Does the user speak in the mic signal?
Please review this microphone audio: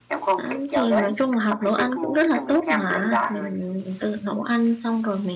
Yes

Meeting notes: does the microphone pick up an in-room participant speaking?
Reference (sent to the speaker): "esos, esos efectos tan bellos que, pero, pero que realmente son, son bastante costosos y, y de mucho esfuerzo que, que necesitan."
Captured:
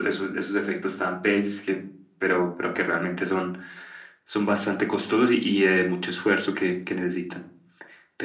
No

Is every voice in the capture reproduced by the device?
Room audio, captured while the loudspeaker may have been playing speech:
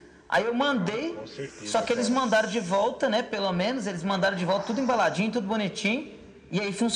No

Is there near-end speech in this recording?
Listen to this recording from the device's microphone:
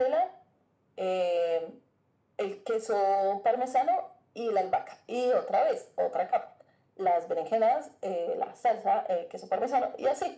No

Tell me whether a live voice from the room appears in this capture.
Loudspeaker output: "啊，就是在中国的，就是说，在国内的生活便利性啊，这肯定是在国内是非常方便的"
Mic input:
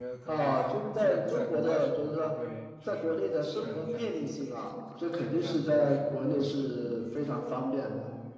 Yes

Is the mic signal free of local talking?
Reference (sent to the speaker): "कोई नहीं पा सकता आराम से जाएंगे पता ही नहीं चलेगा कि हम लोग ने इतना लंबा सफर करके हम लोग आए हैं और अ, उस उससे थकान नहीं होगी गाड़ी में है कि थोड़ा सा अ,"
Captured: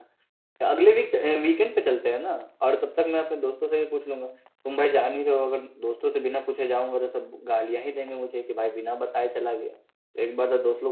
No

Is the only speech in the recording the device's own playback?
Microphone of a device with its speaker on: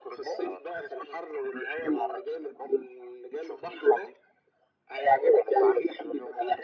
Yes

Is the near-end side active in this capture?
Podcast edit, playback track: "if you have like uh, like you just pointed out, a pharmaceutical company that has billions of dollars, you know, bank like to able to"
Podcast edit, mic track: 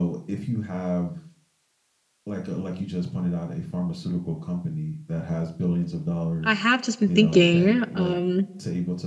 Yes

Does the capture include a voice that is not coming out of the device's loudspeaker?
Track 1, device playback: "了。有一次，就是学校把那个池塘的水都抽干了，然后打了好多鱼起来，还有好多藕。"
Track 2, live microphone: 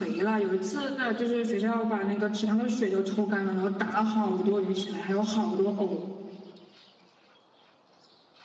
No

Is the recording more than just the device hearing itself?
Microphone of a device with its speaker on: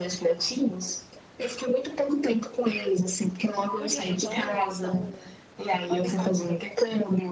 Yes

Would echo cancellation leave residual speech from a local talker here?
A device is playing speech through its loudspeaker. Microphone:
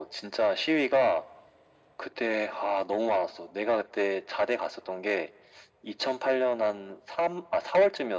No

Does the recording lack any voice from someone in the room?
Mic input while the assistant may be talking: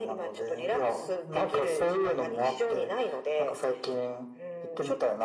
Yes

